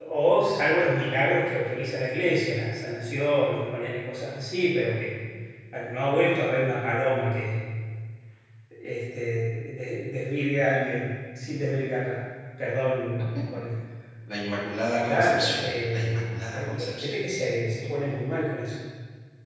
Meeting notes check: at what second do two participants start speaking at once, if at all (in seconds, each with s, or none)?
15.0 s